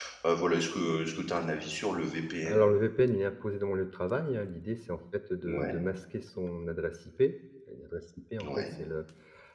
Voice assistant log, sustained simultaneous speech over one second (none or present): none